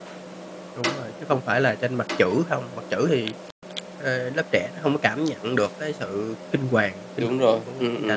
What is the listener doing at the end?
taking over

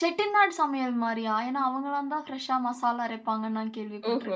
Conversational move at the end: taking over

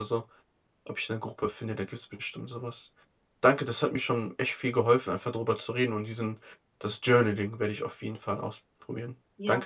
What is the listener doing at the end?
taking over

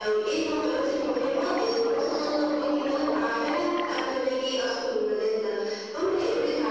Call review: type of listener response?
listening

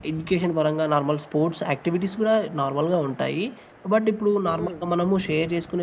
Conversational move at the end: listening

